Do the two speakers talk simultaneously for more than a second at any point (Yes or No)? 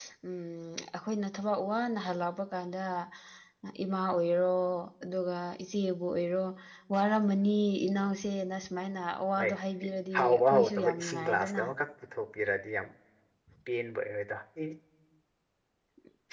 Yes